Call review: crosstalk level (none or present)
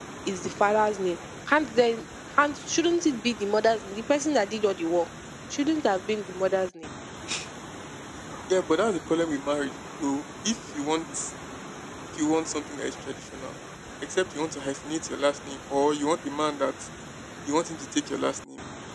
none